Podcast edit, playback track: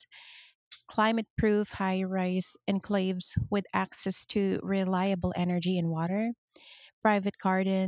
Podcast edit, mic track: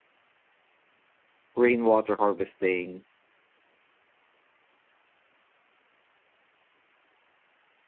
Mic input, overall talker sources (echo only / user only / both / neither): user only